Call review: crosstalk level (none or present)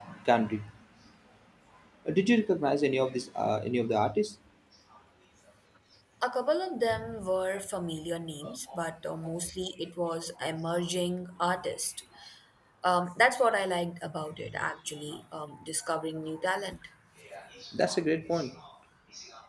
none